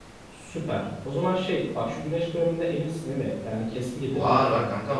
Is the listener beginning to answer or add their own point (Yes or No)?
Yes